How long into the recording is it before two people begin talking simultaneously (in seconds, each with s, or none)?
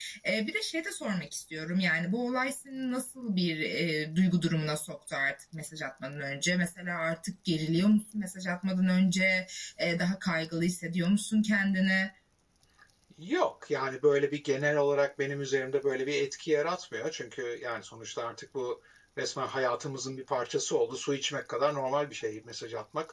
none